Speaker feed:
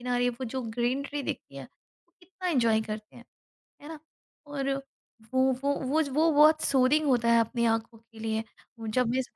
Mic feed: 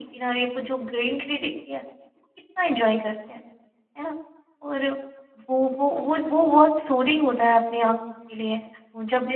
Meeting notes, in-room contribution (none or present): none